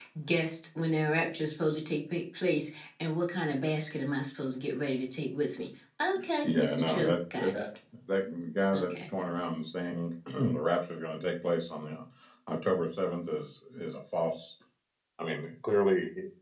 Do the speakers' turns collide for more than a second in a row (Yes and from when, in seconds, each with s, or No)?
Yes, from 6.4 s